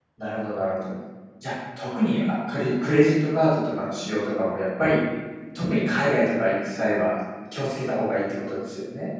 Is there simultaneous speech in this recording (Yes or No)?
No